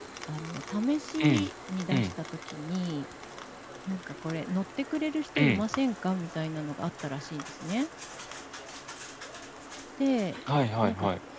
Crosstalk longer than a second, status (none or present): none